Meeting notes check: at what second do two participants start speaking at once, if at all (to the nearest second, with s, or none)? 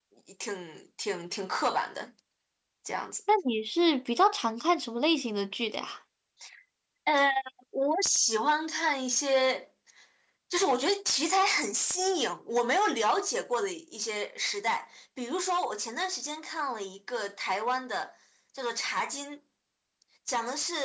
none